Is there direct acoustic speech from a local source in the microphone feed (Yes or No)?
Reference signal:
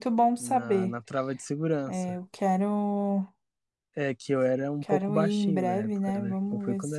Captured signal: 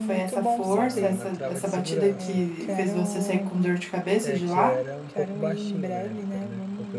Yes